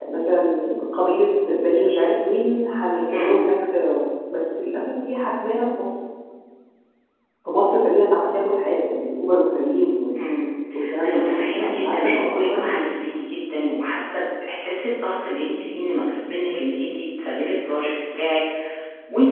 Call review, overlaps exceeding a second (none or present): present